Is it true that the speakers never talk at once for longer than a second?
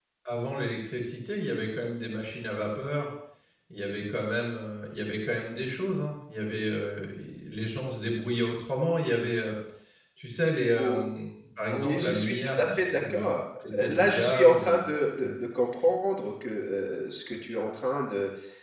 No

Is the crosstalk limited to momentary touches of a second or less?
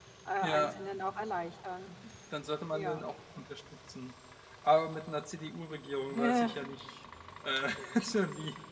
Yes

